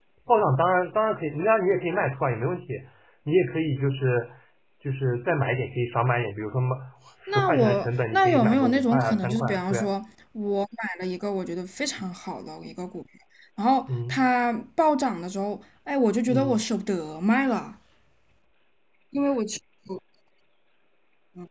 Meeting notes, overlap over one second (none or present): present